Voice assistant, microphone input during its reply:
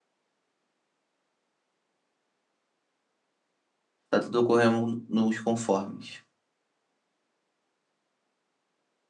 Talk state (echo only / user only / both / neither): user only